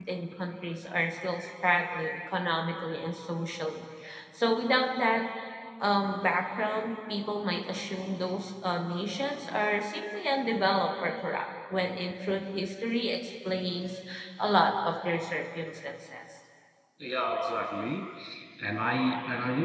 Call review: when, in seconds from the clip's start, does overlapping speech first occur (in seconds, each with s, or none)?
none